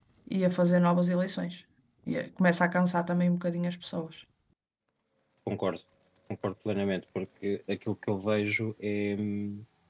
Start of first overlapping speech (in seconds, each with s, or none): none